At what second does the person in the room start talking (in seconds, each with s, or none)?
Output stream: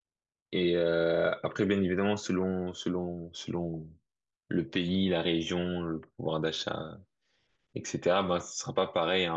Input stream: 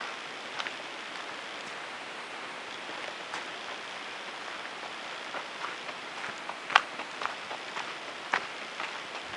none